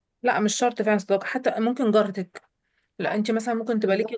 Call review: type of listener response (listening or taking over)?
listening